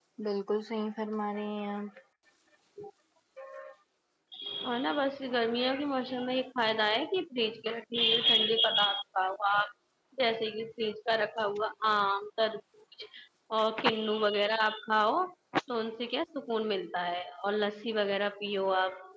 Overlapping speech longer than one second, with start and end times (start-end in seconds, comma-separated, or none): none